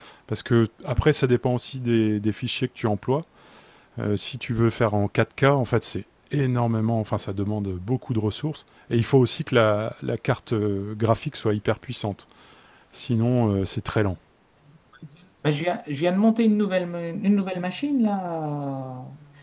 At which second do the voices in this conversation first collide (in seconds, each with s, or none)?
none